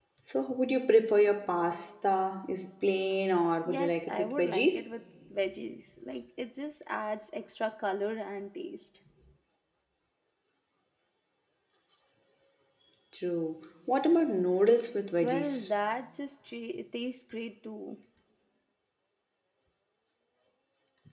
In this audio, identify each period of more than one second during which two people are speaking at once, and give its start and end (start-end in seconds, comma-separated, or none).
3.6-4.9